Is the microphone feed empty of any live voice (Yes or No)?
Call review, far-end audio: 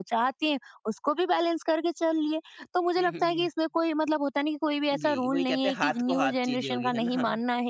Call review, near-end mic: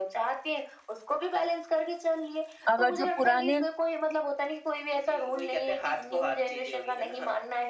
No